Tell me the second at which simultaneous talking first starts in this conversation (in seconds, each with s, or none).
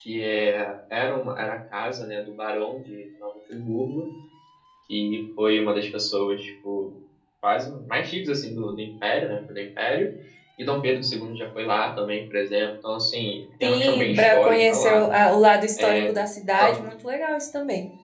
13.6 s